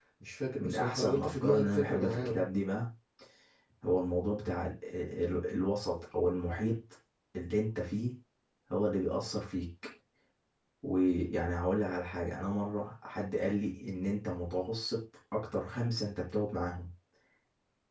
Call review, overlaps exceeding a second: present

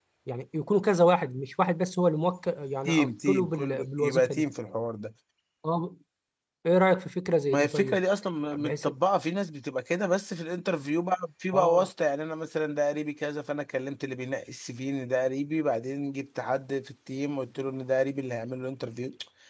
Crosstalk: present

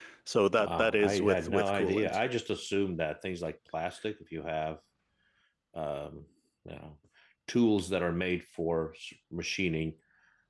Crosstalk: present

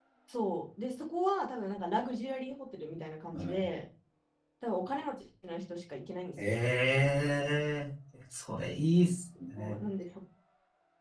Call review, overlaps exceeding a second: none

